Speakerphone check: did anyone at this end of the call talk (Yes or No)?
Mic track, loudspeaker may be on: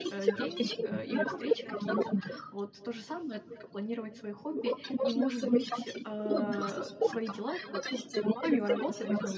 Yes